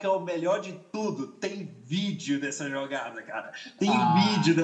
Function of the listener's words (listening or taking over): listening